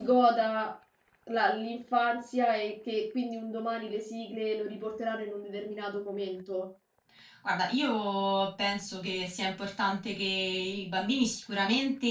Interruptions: none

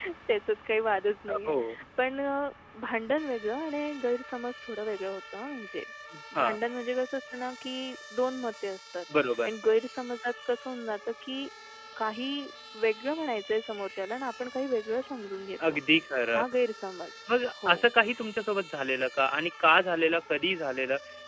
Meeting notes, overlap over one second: none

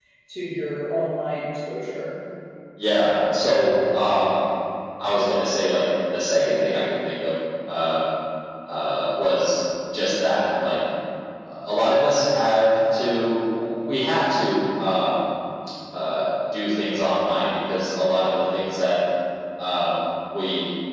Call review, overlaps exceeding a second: none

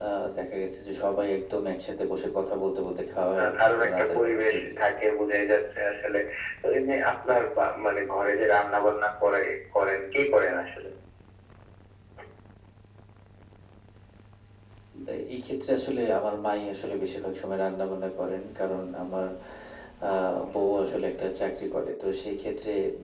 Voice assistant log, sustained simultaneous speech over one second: present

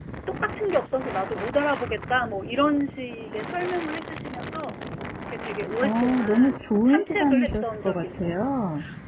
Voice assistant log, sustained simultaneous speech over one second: present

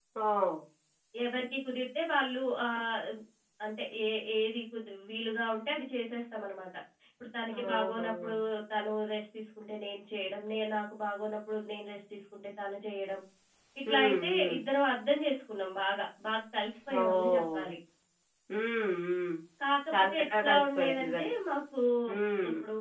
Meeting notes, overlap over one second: present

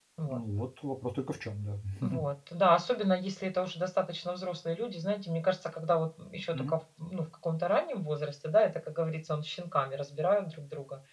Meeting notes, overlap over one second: none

